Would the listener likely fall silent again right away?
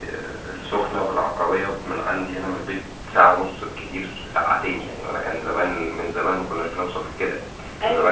Yes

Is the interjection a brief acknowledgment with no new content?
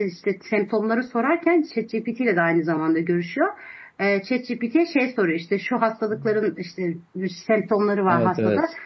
Yes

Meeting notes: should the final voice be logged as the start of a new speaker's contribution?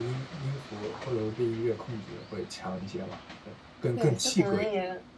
Yes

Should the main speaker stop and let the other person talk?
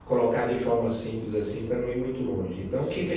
No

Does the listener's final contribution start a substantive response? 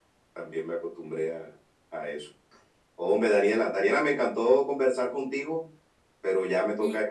No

